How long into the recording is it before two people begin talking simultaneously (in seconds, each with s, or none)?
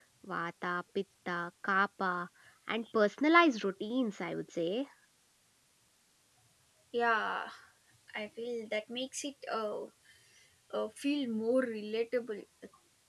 none